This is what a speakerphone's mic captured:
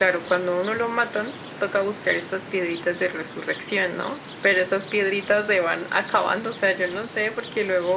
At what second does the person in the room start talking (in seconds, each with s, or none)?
none